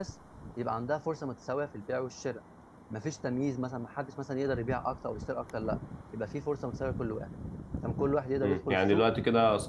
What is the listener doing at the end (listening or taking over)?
taking over